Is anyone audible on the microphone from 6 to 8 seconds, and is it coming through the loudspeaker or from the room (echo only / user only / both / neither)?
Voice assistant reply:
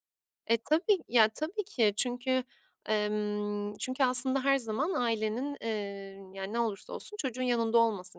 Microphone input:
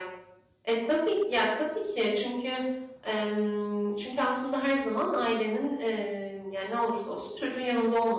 echo only